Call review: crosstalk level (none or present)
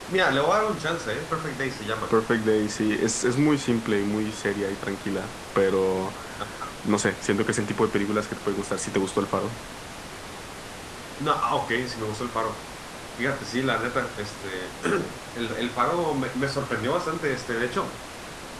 none